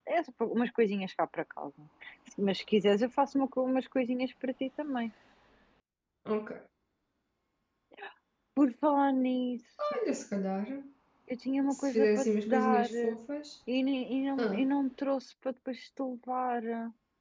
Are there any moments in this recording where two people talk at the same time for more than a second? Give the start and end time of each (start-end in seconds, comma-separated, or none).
11.7-13.2